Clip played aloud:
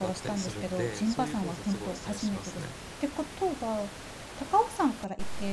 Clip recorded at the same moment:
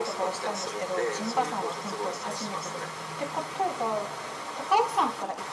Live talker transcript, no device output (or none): none